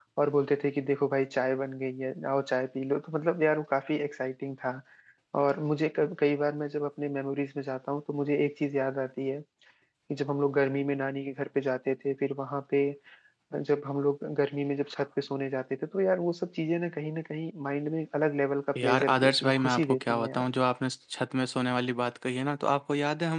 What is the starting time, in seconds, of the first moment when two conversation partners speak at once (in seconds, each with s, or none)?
18.8 s